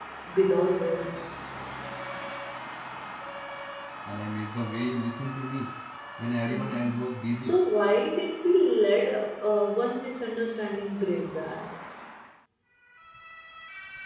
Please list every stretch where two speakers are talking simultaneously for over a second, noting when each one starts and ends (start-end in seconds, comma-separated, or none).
none